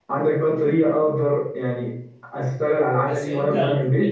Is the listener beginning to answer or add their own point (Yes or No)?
Yes